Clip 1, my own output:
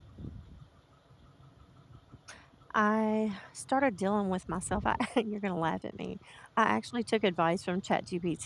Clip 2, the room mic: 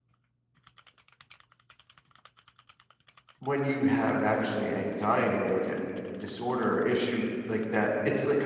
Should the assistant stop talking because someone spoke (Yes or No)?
Yes